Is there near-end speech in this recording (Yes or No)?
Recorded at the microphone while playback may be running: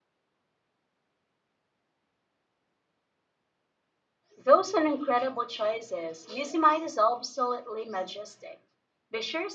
Yes